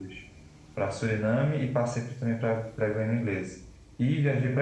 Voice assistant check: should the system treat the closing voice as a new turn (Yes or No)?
No